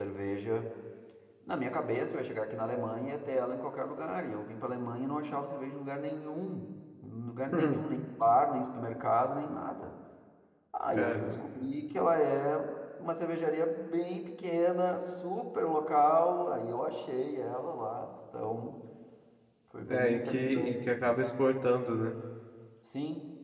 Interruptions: present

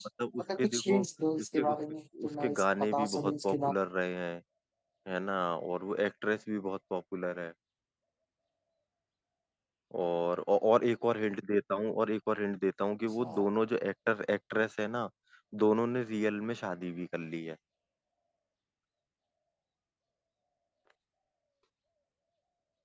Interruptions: present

